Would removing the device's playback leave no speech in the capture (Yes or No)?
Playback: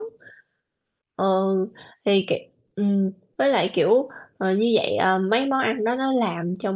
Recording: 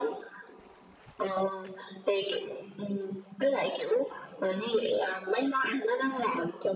Yes